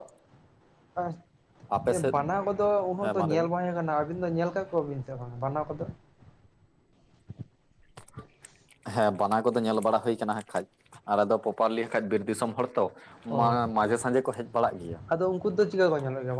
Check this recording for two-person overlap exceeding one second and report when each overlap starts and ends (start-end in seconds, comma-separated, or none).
none